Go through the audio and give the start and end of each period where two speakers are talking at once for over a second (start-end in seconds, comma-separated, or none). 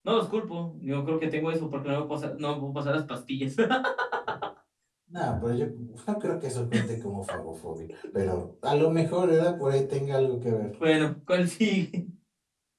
none